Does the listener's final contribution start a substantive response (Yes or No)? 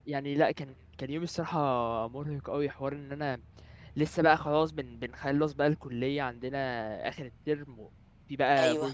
No